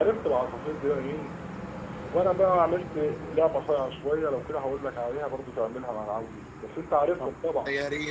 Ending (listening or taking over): taking over